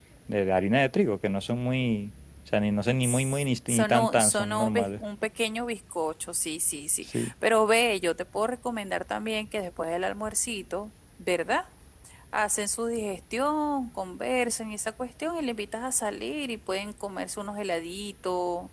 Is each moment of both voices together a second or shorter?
No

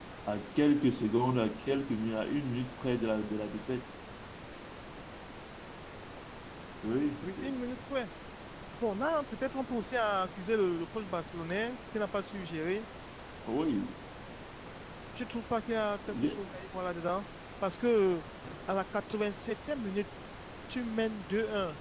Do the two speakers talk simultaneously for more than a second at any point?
No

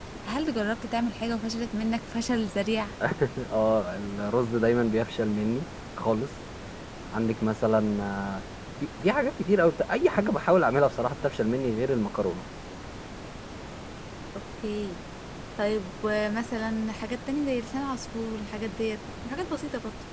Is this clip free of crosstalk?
Yes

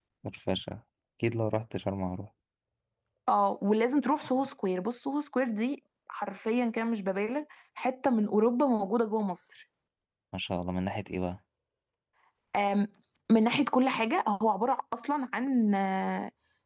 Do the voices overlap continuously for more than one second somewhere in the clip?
No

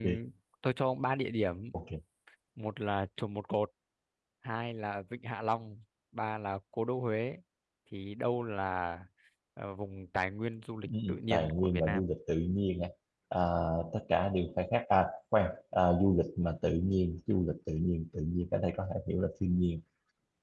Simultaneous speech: Yes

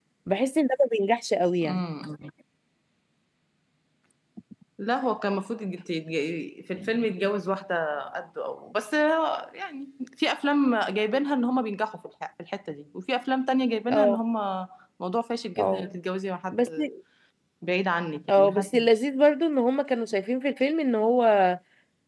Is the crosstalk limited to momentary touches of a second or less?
Yes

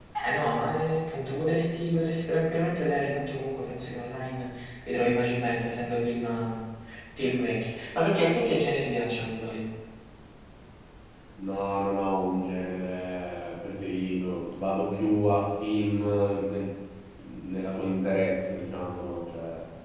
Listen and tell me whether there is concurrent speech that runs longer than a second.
No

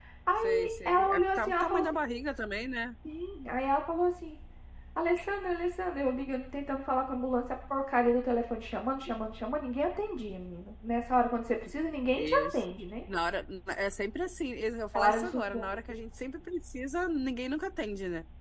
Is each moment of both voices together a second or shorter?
No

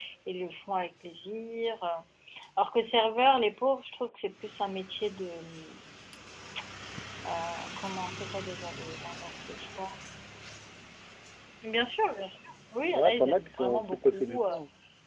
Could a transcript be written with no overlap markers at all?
No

